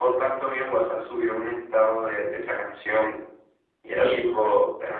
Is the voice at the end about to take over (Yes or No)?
No